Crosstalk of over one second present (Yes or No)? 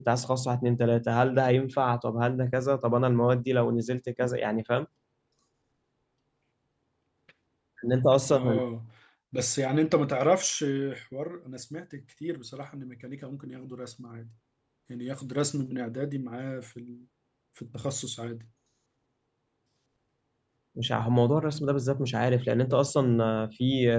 No